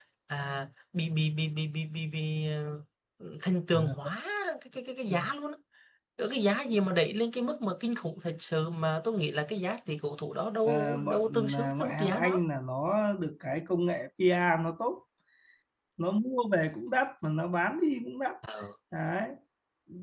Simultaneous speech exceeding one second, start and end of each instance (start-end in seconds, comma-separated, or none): 10.6-12.4